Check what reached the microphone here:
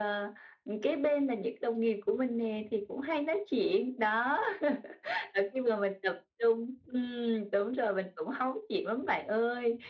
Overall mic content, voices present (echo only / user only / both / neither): echo only